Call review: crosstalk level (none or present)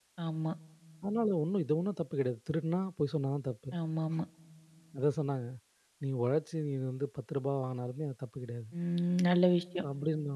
none